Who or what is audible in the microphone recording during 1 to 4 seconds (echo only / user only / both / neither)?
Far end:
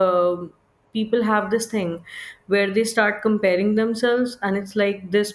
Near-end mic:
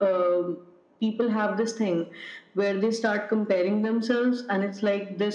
echo only